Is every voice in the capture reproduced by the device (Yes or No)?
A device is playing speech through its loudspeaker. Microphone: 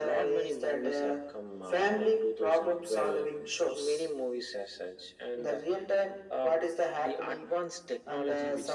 Yes